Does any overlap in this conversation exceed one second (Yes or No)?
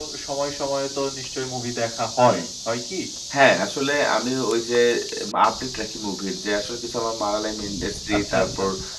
No